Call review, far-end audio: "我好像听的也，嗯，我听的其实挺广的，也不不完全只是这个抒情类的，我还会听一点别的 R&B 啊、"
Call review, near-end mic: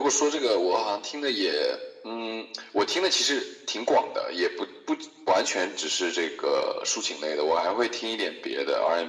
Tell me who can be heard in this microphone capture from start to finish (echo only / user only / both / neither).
echo only